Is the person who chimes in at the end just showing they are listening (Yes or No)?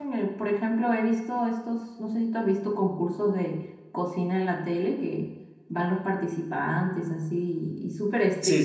No